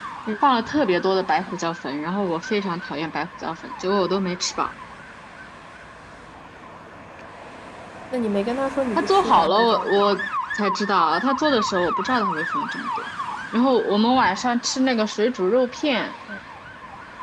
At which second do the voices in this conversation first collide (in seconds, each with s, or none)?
8.9 s